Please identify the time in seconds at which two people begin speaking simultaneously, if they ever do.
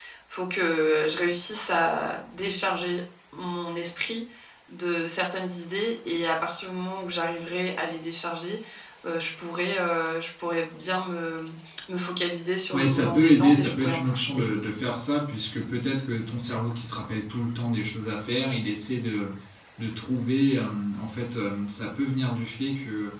12.7 s

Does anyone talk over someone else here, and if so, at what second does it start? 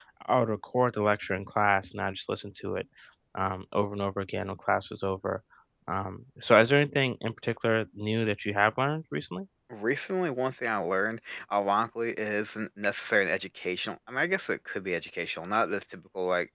none

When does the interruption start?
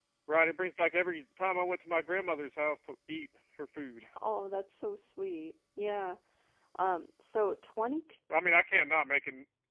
none

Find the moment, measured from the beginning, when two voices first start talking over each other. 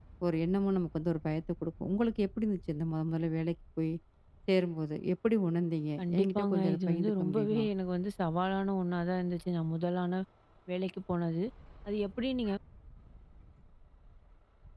6.0 s

